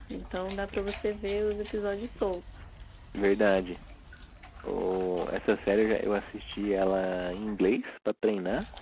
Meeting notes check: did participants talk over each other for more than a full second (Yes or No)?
No